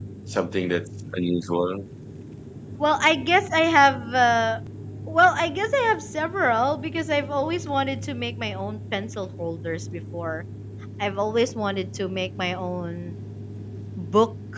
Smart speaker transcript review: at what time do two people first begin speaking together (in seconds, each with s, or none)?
none